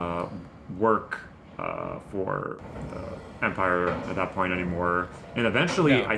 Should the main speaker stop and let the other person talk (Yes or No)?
No